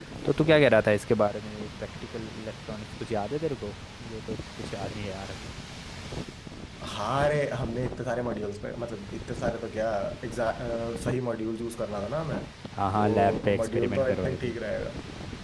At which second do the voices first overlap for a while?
12.9 s

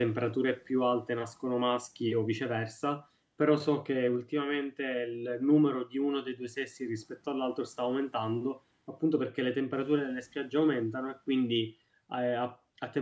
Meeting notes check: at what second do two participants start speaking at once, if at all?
none

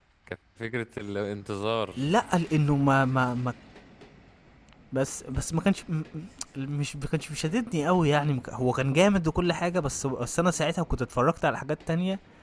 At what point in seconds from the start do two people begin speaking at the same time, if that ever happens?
none

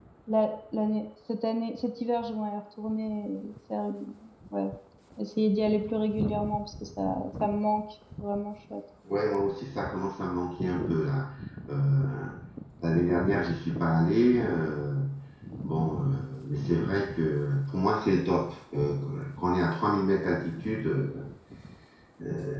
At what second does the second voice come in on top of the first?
none

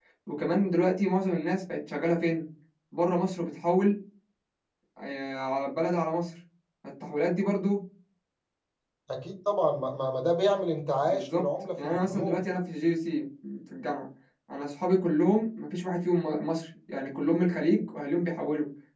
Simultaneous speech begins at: 11.0 s

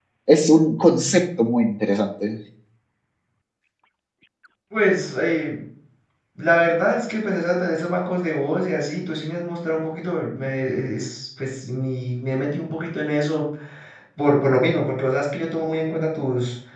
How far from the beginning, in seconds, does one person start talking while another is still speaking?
none

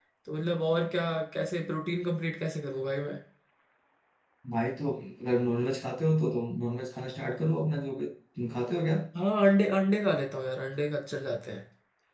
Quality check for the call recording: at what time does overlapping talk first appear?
none

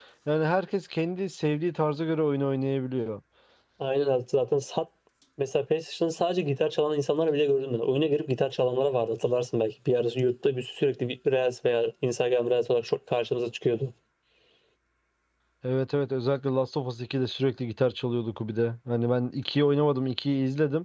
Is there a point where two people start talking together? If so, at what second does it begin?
none

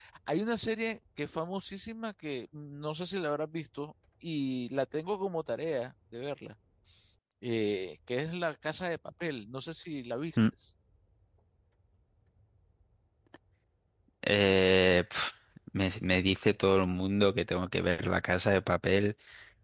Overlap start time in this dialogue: none

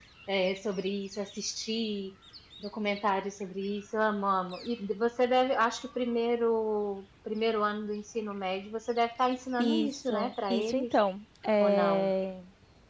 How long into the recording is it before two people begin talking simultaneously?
9.6 s

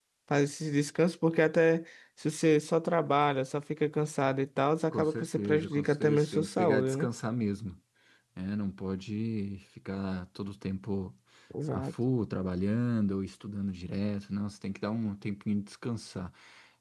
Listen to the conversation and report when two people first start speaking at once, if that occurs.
4.9 s

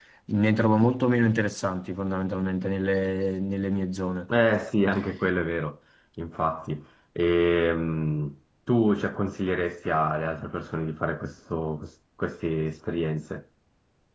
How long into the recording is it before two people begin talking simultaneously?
none

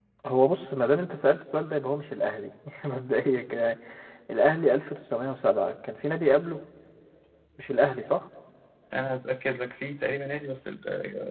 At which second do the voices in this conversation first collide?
none

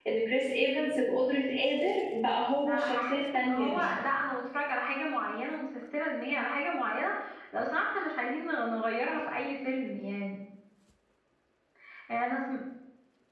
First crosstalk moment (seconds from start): 2.6 s

